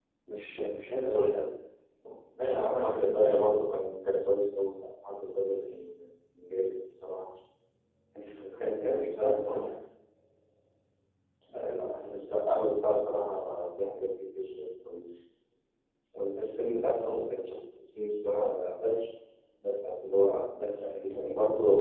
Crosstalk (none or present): present